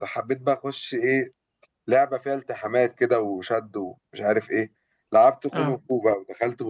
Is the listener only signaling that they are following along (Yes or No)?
Yes